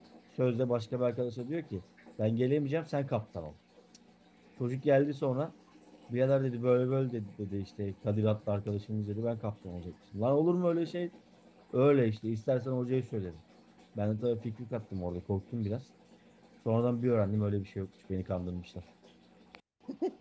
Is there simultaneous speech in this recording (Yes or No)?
No